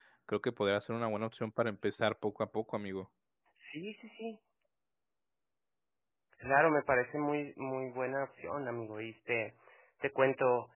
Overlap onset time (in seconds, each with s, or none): none